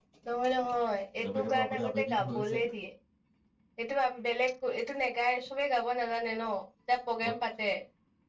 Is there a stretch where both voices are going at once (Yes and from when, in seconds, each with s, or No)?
Yes, from 1.2 s